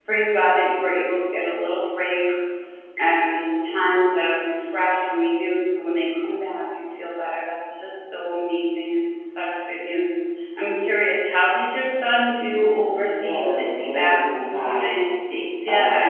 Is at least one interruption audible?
Yes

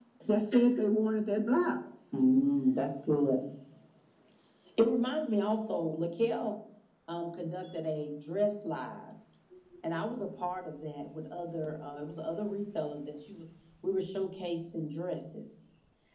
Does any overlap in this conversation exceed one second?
No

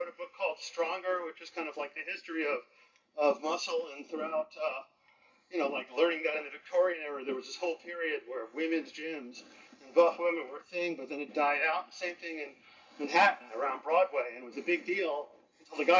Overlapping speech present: No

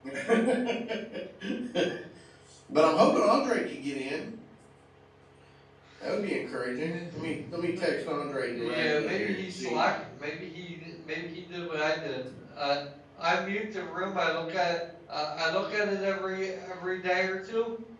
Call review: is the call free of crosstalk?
No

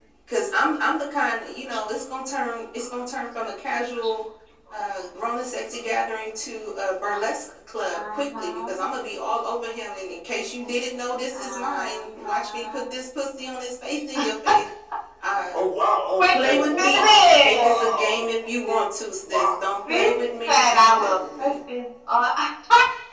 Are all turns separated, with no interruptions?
No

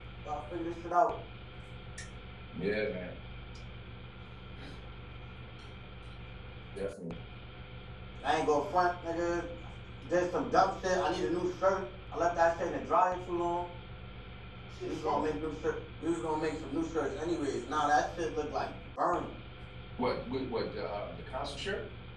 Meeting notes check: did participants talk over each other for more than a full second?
No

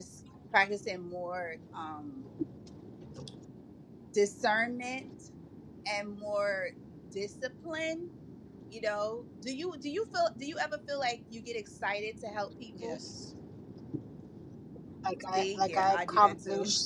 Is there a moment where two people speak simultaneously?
Yes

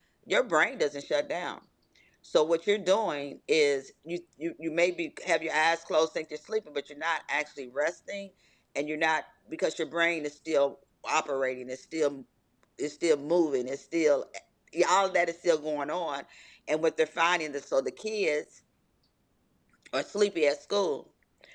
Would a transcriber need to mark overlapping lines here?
No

